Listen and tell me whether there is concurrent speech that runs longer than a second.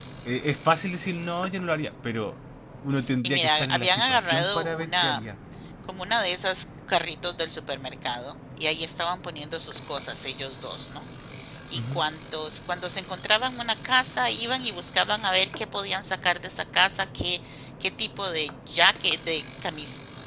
Yes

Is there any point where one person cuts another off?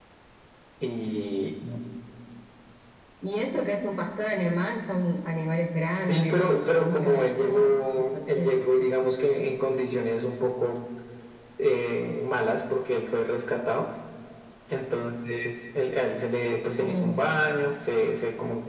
Yes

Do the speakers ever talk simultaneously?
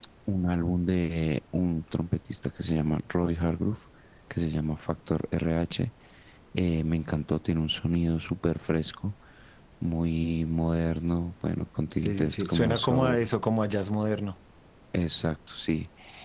Yes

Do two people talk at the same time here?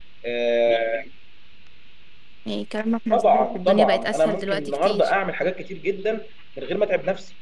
Yes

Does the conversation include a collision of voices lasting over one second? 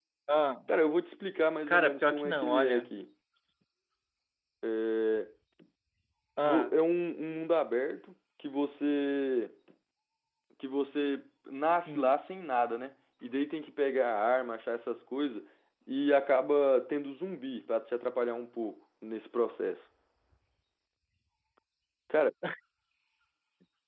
Yes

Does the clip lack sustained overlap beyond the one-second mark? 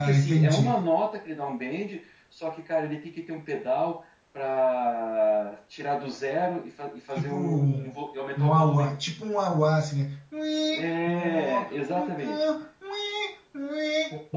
No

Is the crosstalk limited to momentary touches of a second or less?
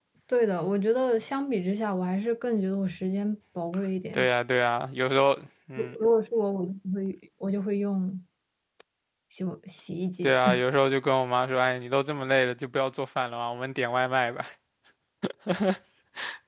Yes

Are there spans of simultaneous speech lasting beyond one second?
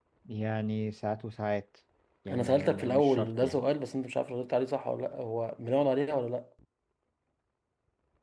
Yes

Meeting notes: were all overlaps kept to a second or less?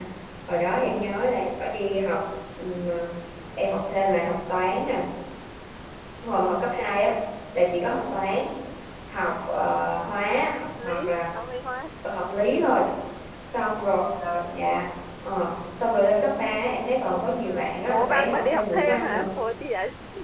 No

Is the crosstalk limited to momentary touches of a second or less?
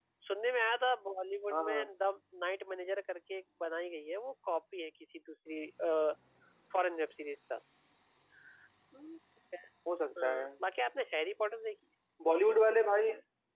Yes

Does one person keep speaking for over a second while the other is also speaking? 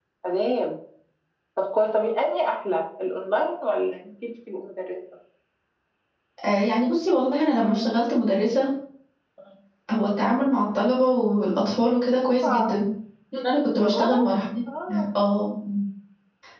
No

